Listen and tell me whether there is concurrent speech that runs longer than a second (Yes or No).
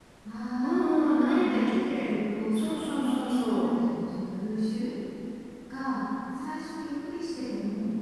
Yes